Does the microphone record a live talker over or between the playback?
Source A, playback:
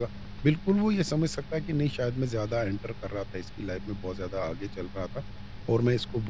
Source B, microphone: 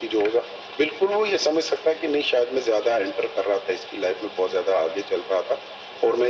No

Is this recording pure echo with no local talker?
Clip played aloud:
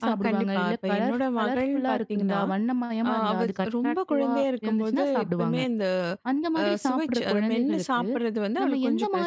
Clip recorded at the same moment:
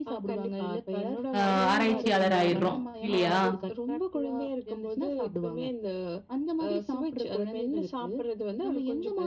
No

